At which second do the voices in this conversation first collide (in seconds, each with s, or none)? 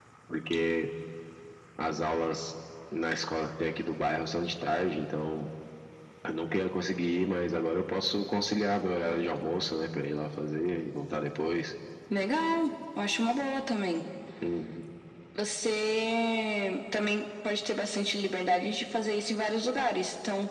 none